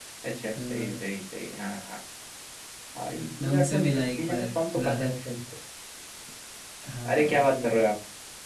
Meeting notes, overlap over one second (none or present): present